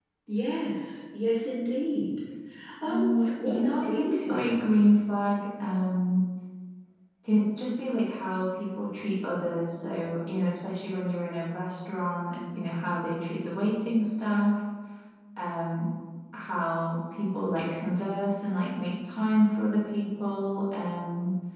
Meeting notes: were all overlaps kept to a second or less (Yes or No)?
No